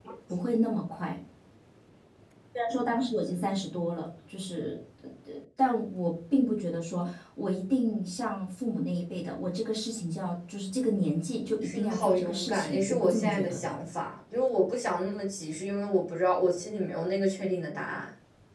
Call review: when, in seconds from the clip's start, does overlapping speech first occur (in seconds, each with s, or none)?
11.6 s